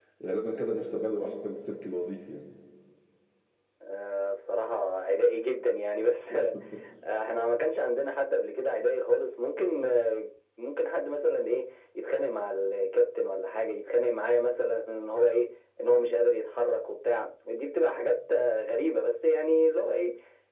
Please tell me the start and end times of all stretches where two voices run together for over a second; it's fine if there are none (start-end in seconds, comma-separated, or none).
none